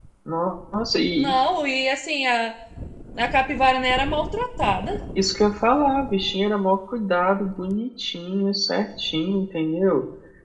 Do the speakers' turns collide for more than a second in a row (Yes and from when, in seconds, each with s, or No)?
No